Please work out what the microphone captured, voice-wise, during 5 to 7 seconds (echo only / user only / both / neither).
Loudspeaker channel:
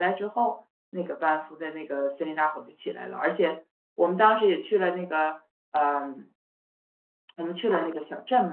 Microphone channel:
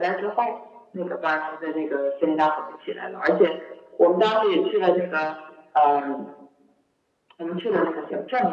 echo only